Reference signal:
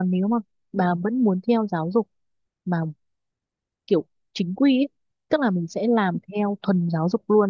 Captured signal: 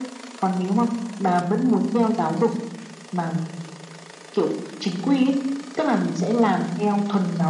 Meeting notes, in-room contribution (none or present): none